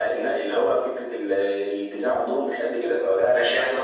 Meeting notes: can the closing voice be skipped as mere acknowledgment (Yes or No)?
No